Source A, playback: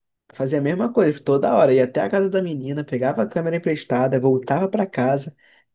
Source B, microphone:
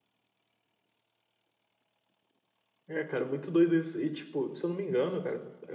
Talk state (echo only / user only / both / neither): user only